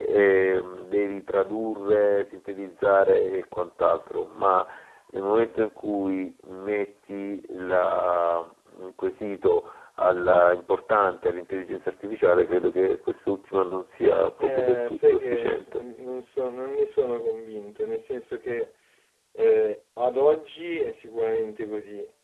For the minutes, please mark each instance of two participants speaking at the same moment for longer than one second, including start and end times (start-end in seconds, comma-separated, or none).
14.4-15.8